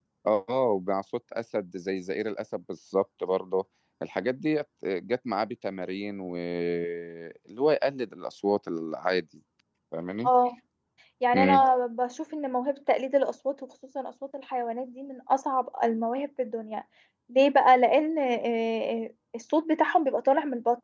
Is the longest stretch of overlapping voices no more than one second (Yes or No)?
Yes